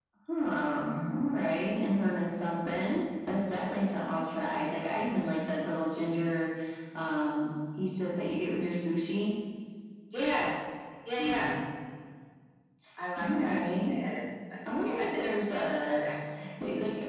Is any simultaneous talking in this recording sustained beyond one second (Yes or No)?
Yes